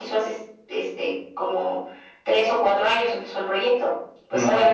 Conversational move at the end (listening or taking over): listening